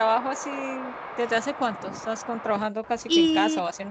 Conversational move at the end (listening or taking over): taking over